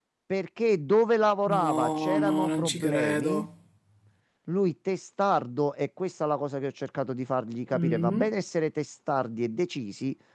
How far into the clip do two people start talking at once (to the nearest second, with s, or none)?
1 s